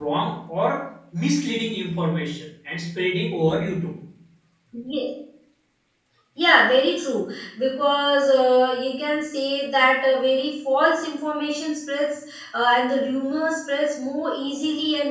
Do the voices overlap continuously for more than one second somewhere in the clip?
No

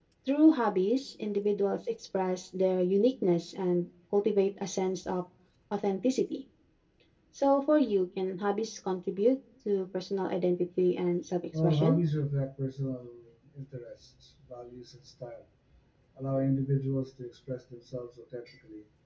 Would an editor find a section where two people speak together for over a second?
No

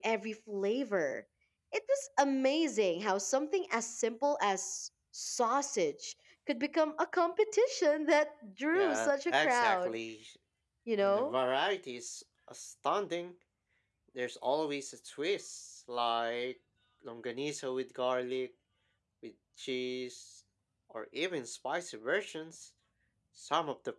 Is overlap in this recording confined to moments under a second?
No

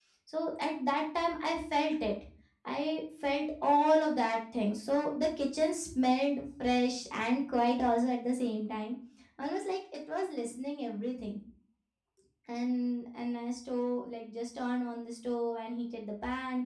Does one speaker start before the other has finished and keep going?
No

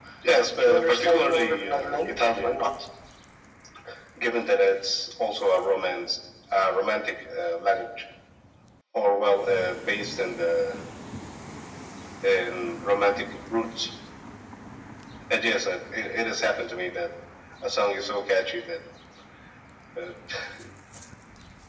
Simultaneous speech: Yes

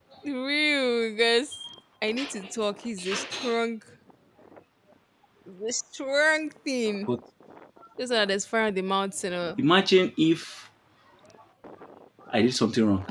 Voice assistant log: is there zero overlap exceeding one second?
Yes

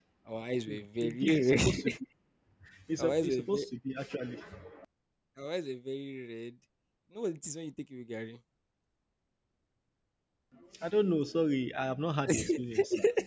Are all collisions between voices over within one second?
No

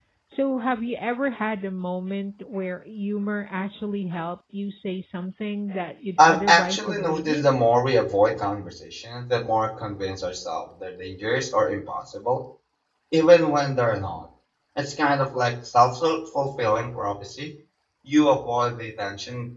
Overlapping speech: Yes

